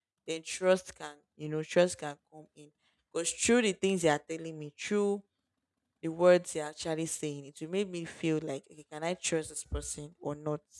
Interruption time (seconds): none

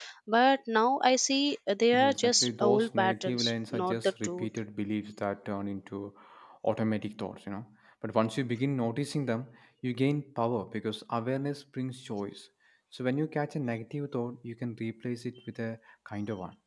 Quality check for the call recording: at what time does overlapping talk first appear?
2 s

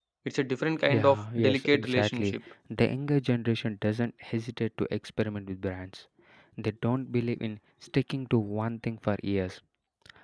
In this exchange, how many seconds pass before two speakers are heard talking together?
1 s

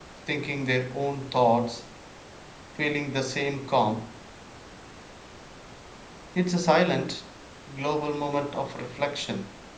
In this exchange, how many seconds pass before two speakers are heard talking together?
none

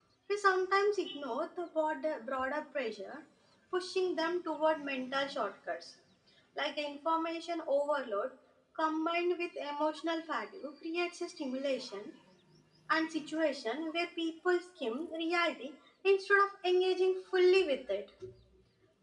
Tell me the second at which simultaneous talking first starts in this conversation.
none

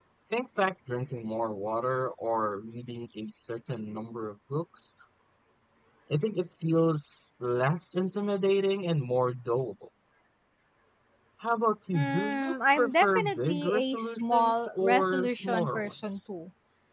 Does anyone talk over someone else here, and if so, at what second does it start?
12 s

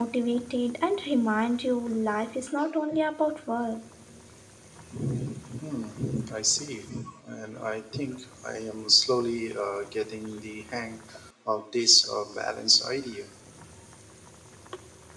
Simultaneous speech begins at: none

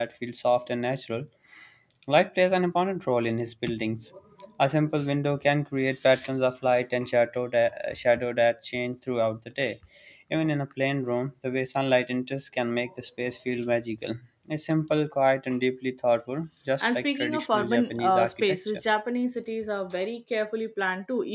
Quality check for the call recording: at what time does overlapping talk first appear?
17 s

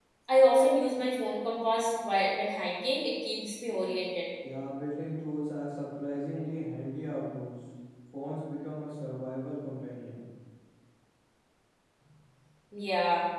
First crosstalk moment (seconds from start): none

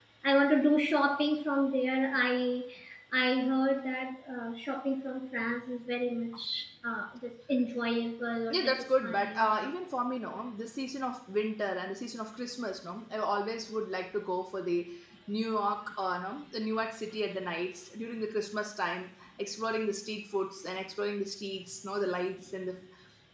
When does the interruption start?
9 s

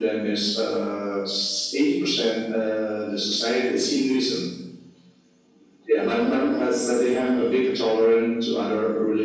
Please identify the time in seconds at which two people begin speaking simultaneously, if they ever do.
6 s

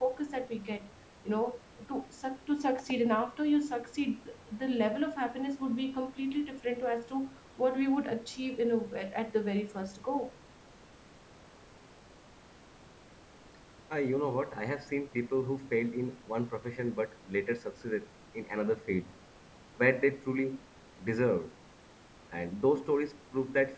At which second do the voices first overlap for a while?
none

